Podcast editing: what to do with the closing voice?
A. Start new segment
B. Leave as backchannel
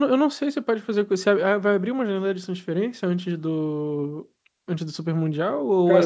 A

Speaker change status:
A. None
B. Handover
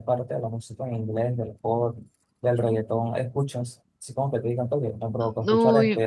B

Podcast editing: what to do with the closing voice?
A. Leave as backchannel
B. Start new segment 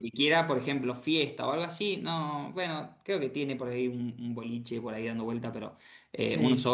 A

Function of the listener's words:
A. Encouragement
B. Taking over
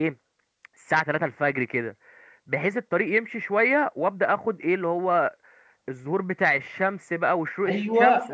B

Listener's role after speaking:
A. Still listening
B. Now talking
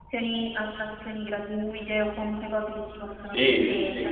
B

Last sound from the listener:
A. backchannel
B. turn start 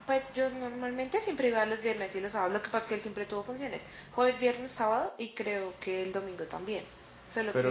B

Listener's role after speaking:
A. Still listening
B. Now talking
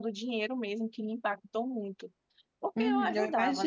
B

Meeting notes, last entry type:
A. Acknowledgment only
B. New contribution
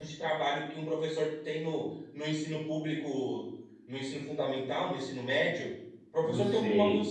A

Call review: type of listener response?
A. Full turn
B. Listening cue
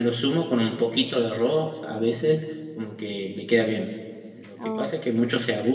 B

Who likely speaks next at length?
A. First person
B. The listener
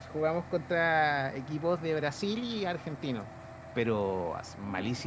A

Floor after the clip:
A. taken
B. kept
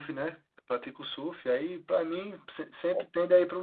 B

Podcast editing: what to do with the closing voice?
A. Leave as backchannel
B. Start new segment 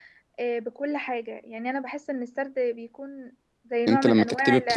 B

